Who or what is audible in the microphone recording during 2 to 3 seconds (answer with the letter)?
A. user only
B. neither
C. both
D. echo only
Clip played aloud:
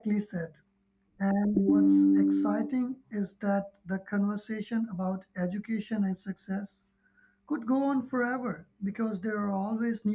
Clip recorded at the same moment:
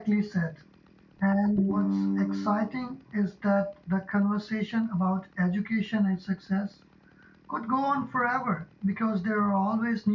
D